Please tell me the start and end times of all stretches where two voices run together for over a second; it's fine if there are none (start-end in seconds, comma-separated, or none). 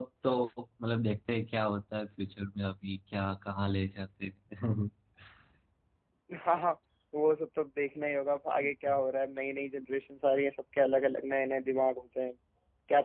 none